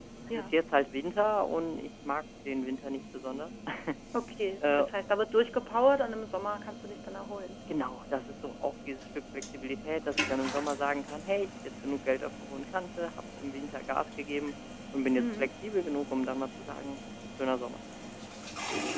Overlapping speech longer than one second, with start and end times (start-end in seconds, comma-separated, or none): none